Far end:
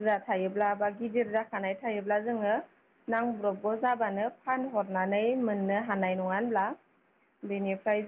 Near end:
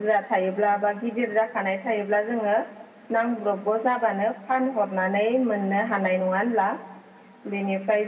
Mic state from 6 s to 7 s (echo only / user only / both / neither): echo only